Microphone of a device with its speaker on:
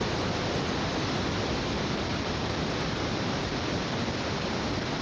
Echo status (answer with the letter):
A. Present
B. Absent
B